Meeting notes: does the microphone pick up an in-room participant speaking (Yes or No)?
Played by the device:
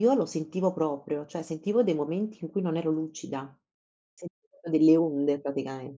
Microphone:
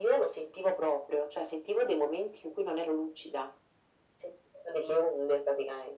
No